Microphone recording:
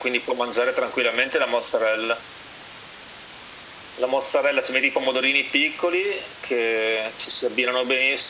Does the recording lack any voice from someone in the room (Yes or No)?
Yes